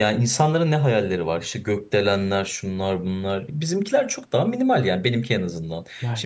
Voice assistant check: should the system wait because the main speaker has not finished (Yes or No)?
Yes